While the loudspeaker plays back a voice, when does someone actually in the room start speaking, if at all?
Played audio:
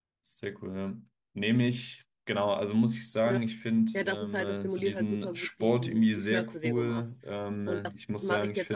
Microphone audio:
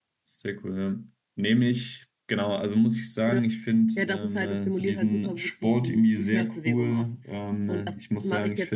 none

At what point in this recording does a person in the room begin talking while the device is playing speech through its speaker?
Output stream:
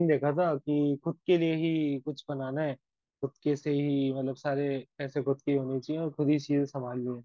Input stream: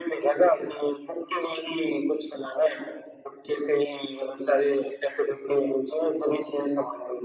none

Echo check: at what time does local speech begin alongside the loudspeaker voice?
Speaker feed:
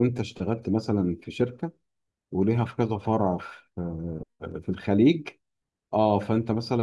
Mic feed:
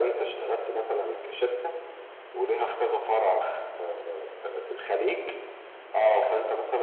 none

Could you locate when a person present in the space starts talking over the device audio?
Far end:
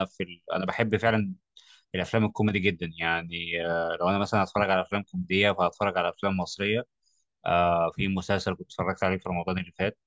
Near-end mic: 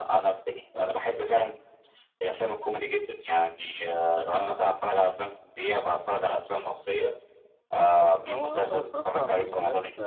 8.0 s

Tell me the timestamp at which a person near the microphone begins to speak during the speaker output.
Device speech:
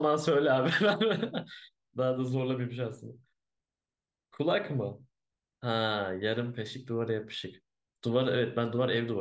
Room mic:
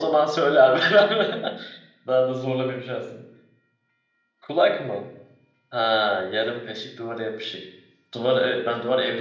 none

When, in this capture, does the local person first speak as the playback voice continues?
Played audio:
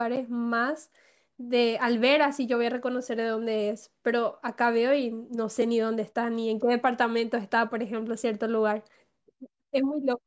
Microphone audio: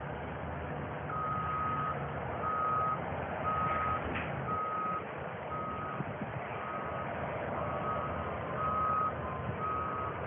none

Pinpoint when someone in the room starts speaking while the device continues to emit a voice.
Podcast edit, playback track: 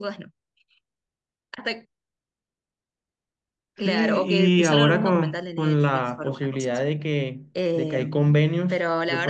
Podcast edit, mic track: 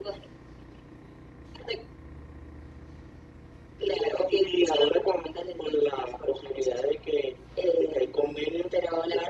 none

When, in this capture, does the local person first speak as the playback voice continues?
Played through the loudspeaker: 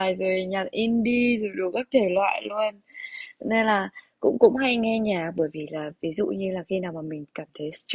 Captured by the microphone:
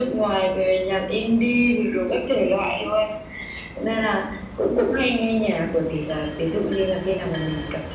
none

